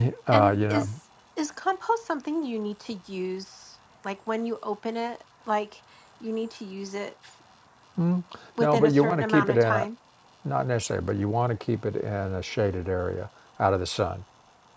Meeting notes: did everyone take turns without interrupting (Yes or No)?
No